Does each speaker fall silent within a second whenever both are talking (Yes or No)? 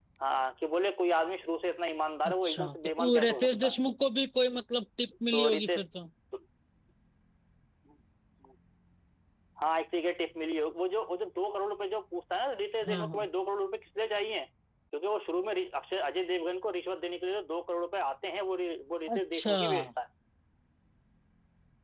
No